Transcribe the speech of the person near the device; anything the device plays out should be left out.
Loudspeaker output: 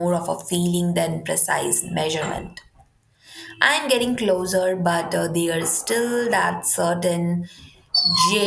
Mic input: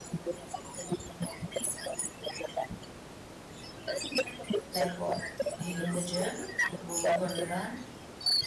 Like what? Hitting the gym, going for a run.

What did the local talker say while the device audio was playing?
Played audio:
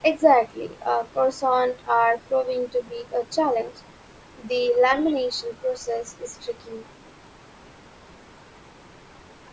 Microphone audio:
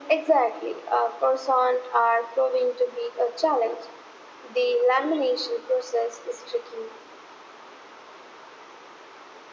none

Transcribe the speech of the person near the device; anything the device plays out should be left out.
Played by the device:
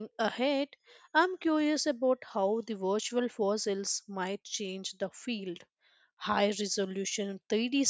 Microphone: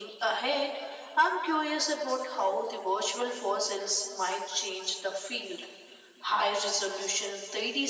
none

